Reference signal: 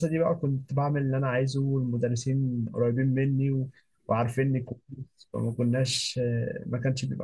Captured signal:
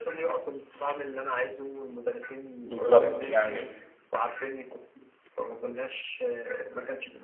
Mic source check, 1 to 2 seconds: echo only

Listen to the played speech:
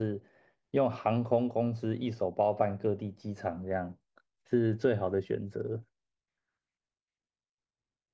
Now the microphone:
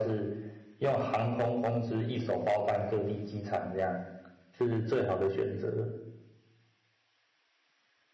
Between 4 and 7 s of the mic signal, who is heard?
echo only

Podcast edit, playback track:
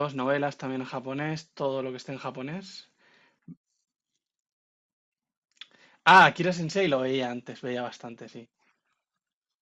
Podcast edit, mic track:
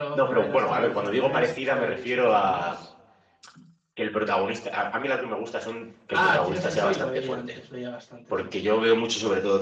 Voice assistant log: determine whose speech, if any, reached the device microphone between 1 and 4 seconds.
both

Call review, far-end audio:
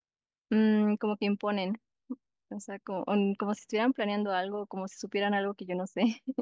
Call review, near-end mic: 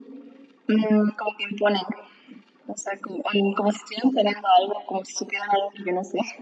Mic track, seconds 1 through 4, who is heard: echo only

